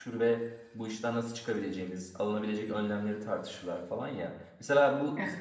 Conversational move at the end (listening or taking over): listening